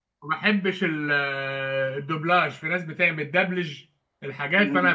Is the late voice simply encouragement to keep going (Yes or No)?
No